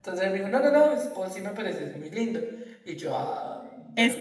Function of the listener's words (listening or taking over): taking over